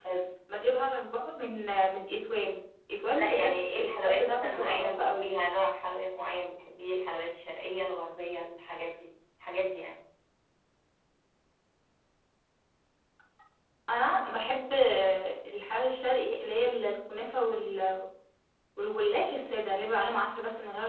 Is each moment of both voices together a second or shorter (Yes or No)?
No